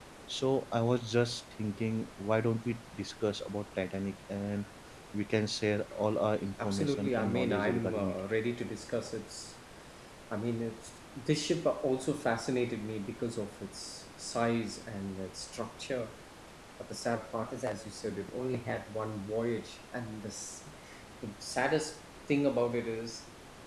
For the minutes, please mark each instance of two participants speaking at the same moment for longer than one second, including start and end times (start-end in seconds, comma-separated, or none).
6.6-8.1